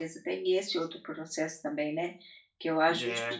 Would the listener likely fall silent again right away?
Yes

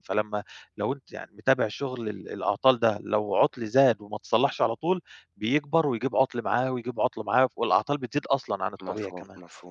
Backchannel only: No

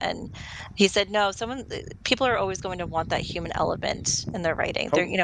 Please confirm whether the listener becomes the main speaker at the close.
No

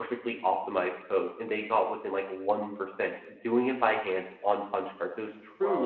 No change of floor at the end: Yes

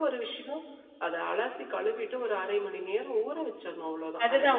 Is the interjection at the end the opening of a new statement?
Yes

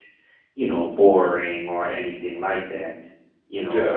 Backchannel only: Yes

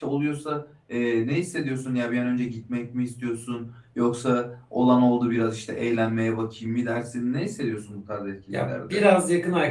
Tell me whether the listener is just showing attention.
No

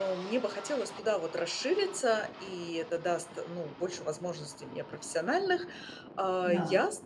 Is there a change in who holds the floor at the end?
No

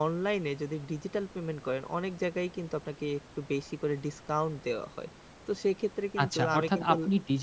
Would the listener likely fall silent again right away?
No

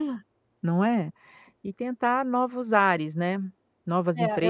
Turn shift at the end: Yes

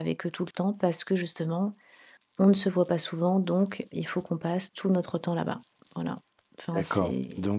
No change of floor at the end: No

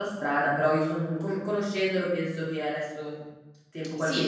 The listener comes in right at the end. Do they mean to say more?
Yes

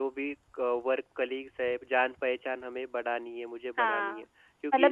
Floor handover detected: Yes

